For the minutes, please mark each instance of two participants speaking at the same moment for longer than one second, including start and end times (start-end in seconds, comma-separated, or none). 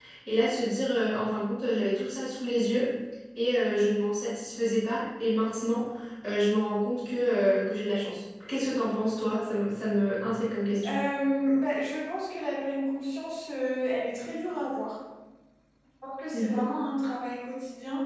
none